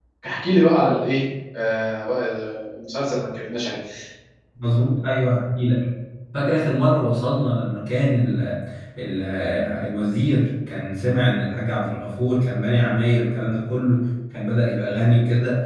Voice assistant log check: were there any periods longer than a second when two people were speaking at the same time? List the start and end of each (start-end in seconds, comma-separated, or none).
none